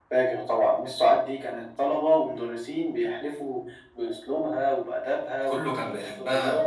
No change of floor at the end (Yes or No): No